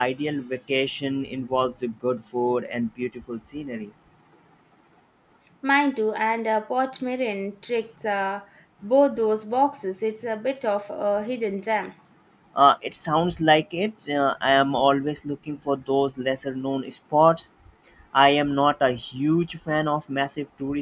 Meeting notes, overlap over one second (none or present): none